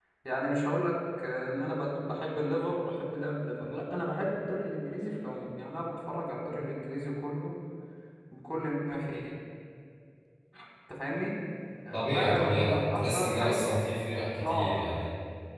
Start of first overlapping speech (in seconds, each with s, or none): 11.9 s